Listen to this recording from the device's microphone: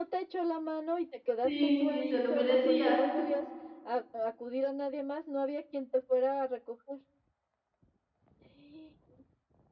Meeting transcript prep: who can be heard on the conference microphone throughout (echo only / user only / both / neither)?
both